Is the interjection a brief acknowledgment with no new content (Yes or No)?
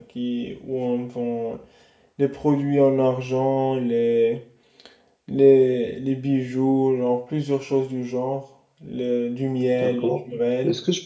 No